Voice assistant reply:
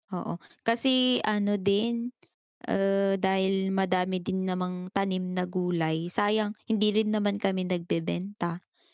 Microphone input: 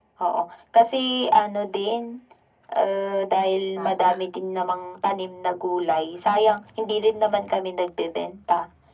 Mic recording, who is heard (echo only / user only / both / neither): both